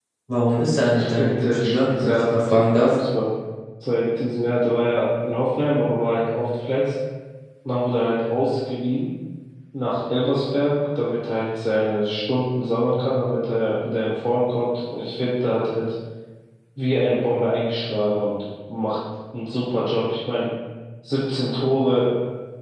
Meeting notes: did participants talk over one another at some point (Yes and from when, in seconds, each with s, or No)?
Yes, from 0.9 s